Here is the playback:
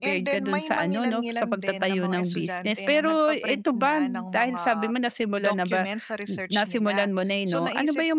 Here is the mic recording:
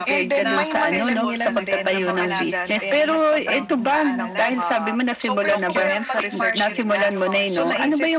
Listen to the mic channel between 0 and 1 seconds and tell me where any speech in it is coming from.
both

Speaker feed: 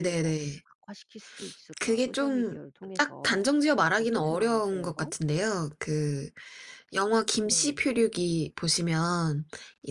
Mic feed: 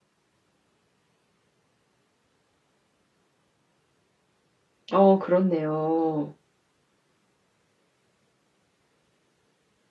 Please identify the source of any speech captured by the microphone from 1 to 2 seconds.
neither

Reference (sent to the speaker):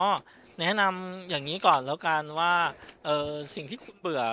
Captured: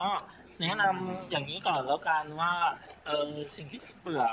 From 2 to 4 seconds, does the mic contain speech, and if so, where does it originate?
echo only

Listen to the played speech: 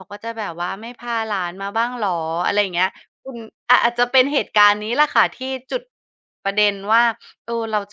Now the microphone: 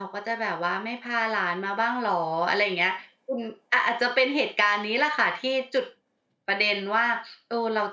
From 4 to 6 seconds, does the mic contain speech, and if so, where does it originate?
echo only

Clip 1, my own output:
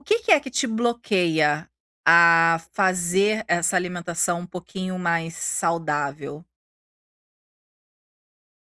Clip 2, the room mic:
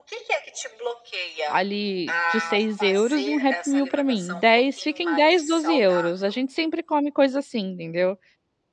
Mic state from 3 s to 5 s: both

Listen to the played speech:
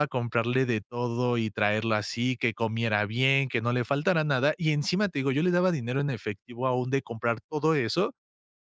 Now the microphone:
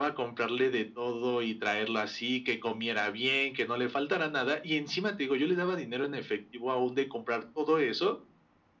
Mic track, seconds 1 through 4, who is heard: echo only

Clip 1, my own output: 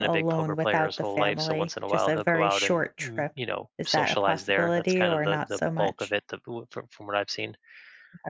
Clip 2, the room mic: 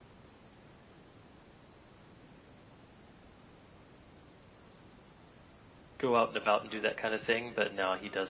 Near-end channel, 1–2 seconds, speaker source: neither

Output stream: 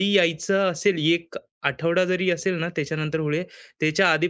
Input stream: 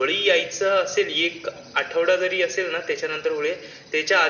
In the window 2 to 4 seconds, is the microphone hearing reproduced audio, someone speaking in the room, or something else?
echo only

